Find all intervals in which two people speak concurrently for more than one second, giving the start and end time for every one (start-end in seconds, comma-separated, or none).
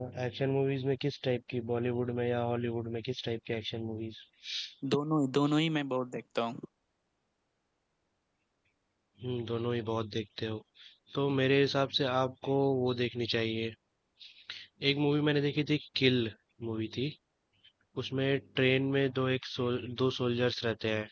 none